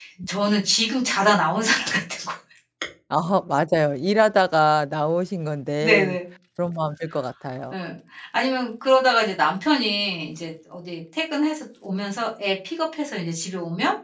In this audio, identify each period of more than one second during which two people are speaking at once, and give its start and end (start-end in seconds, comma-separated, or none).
none